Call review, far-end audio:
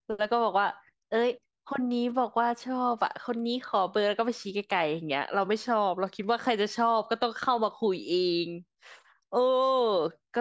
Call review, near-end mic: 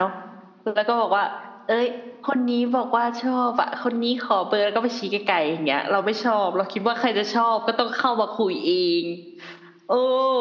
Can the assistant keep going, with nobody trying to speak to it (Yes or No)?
Yes